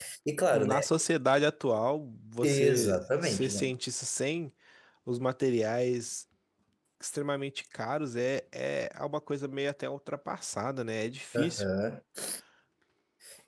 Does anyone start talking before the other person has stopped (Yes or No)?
Yes